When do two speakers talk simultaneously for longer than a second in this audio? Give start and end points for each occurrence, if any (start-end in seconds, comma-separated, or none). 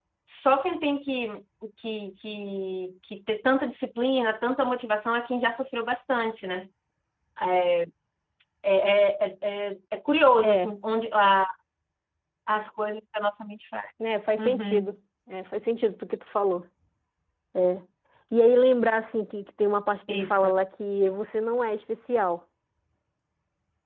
none